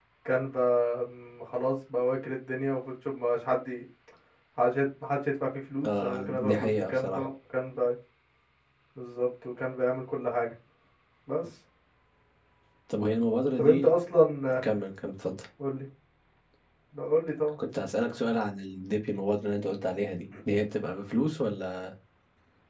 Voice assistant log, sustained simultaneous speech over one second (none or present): present